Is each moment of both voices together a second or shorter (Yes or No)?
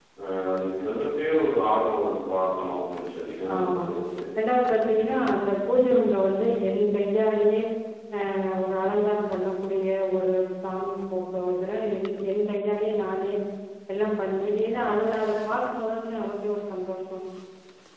Yes